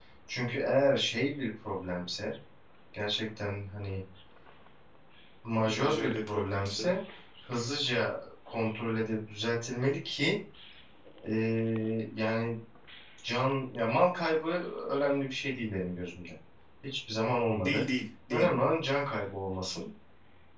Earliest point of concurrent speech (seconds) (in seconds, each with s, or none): 5.6 s